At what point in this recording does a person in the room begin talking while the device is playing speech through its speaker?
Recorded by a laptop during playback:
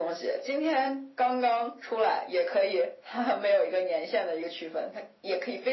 none

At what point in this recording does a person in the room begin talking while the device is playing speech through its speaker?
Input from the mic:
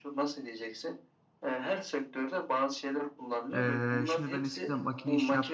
3.5 s

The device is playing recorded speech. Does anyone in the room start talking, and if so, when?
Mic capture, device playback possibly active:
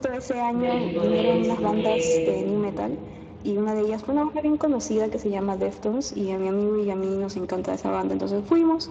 0.5 s

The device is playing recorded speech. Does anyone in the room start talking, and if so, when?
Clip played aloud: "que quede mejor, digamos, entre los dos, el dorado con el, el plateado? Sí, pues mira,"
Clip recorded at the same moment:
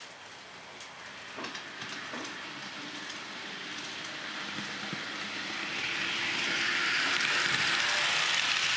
none

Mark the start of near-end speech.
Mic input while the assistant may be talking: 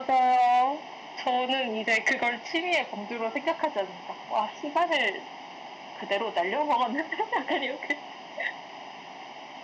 none

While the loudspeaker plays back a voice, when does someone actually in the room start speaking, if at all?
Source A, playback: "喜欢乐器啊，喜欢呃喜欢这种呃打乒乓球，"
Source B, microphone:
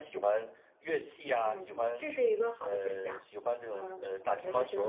1.4 s

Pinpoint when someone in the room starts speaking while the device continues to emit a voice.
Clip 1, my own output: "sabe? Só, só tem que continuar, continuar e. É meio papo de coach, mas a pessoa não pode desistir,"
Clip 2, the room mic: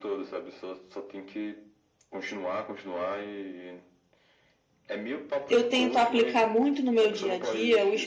5.5 s

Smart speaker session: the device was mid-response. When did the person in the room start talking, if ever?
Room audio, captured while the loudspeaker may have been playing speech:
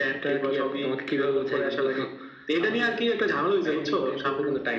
none

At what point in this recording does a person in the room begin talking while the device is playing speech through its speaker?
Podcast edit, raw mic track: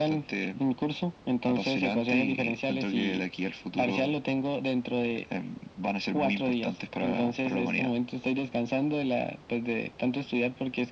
none

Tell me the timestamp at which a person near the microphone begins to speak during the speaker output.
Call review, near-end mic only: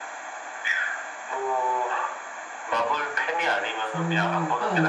3.8 s

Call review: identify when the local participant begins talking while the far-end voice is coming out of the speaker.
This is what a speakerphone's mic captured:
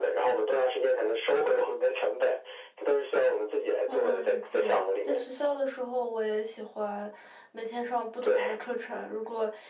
3.8 s

